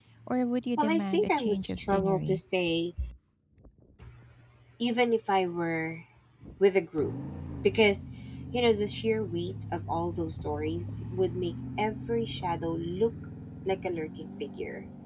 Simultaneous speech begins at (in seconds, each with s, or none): 0.8 s